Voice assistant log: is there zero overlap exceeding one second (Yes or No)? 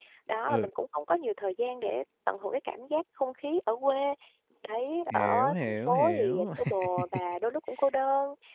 No